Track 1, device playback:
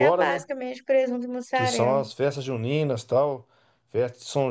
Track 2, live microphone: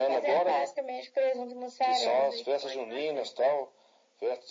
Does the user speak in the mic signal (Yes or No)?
Yes